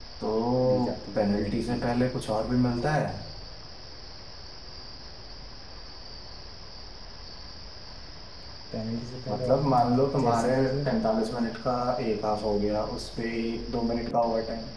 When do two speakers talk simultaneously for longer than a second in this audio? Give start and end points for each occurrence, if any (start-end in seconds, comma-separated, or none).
0.7-2.0, 9.3-10.9